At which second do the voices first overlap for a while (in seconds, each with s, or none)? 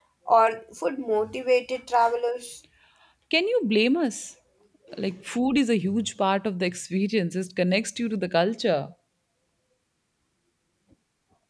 none